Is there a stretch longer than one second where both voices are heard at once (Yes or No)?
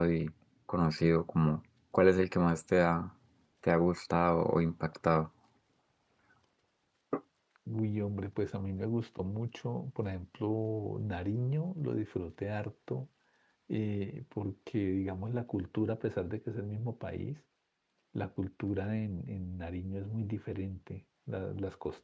No